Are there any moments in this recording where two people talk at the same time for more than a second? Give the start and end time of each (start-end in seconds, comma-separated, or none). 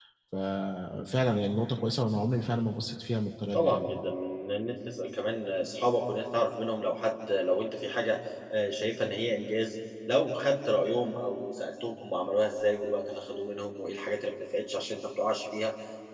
none